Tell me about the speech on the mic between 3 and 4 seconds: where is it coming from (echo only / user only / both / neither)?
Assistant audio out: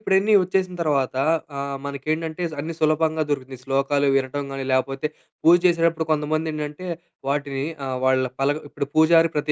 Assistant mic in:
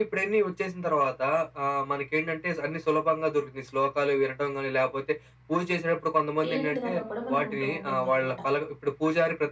echo only